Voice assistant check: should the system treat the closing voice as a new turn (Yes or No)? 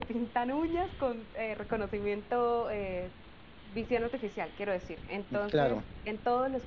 No